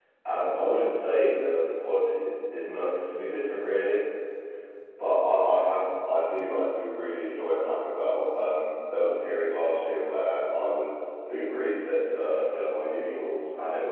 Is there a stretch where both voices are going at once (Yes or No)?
No